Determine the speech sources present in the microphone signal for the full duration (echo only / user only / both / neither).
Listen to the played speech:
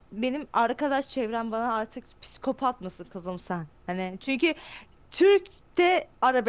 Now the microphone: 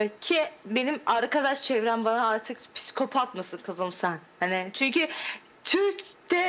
echo only